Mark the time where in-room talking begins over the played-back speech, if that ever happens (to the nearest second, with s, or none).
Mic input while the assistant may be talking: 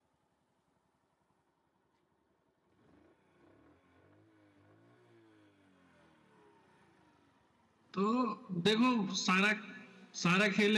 8 s